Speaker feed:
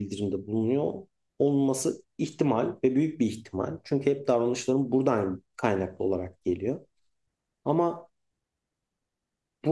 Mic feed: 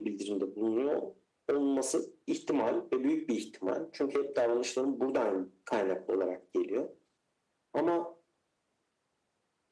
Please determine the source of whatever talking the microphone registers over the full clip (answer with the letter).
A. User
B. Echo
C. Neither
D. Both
B